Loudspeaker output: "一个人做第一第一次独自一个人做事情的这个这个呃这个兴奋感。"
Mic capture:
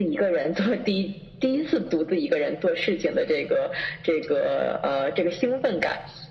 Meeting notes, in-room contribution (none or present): none